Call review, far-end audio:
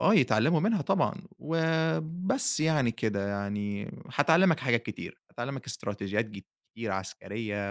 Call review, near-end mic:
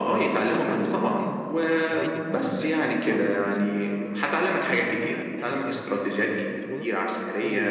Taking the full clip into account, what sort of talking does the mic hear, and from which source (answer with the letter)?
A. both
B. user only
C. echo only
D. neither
A